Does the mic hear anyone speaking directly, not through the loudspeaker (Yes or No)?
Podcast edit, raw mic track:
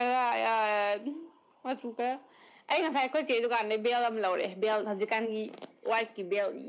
No